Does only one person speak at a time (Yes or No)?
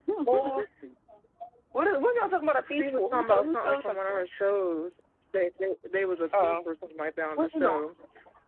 No